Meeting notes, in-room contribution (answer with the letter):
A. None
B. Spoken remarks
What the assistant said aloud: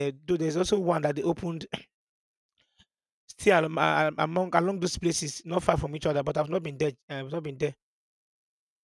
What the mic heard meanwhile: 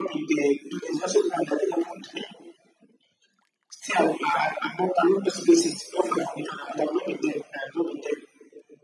A